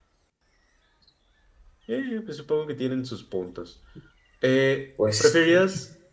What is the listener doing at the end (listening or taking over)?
listening